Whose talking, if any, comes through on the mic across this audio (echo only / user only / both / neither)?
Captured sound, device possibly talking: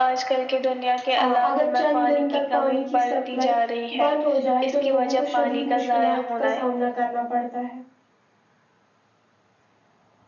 both